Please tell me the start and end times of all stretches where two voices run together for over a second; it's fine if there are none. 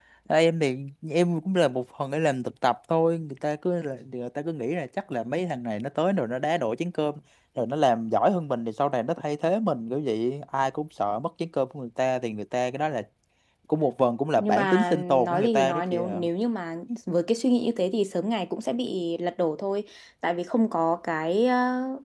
14.4-16.2

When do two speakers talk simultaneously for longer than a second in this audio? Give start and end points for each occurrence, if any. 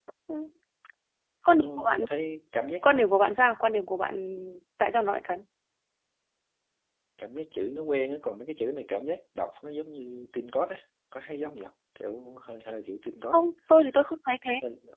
none

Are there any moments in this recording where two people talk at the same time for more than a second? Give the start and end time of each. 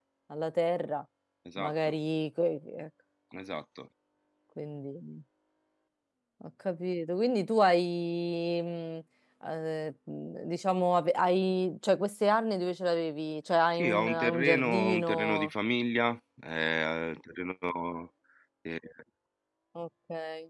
13.8-15.5

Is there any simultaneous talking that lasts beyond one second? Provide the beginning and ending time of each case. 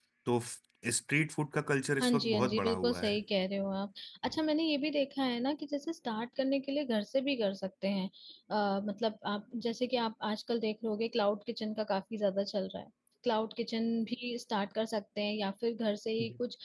2.0-3.2

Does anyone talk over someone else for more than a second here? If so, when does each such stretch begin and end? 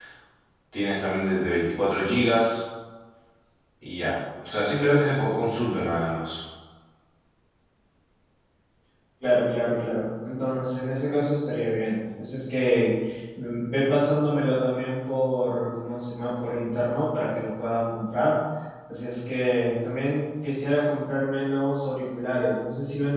none

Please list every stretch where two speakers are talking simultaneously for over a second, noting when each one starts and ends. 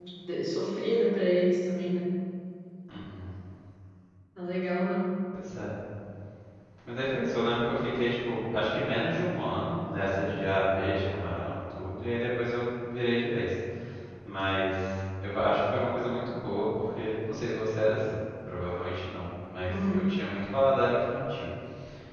none

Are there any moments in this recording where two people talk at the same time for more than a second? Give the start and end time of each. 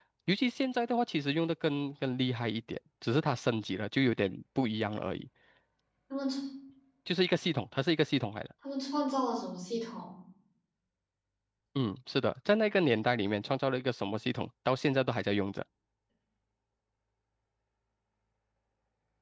none

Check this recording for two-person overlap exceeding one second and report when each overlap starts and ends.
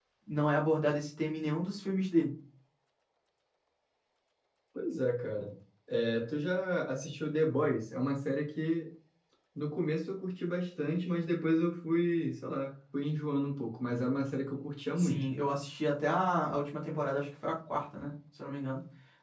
none

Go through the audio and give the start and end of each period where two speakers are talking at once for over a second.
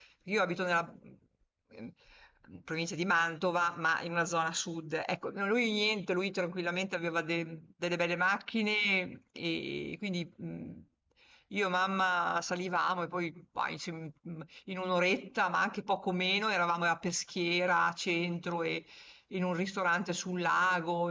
none

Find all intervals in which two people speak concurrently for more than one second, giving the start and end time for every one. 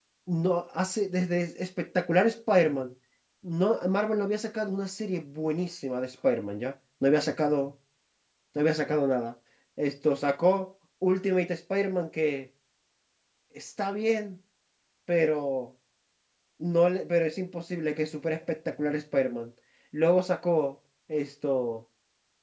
none

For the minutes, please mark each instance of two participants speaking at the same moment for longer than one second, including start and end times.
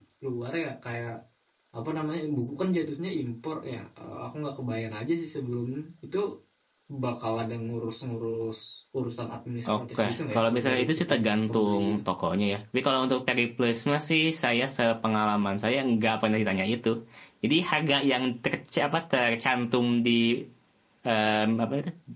9.7-12.0

